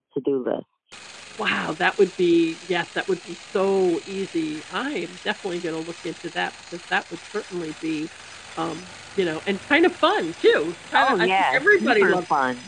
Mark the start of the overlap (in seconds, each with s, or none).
10.9 s